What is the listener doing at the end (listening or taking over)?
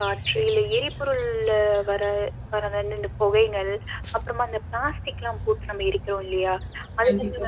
listening